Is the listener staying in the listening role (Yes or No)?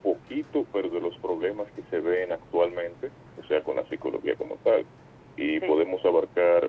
Yes